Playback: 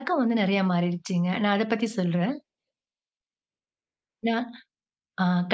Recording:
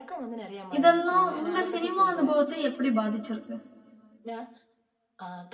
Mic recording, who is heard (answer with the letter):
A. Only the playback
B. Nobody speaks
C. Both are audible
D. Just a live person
C